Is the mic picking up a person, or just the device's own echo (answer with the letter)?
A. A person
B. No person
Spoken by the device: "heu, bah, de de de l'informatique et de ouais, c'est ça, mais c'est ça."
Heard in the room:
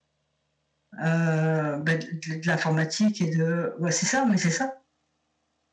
B